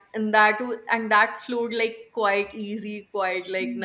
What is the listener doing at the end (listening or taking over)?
taking over